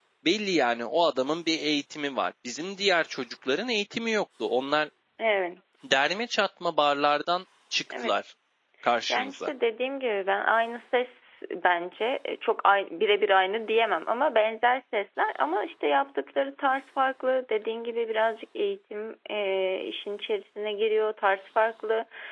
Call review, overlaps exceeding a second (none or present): none